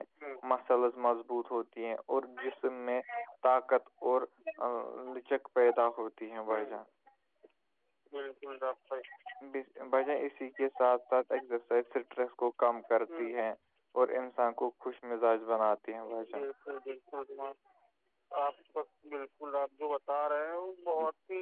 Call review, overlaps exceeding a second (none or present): none